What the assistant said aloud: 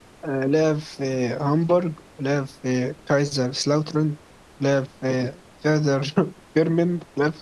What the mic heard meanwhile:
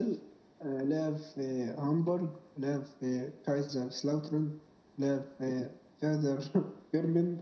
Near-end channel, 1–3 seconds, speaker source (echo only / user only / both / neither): echo only